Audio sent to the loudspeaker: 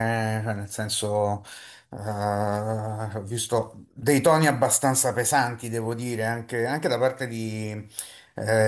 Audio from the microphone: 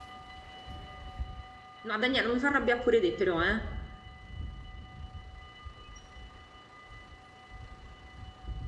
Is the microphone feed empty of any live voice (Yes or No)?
No